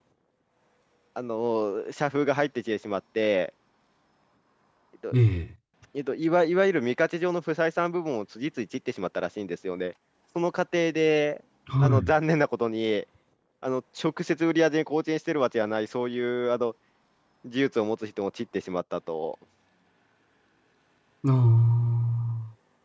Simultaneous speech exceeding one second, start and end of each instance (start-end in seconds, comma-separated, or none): none